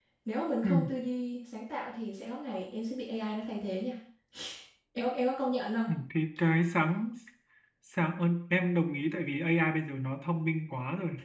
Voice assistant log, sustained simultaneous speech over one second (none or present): none